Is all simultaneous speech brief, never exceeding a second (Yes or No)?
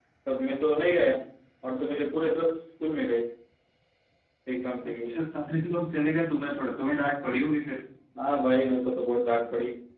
Yes